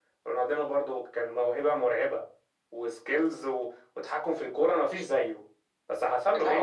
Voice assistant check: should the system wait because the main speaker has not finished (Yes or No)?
Yes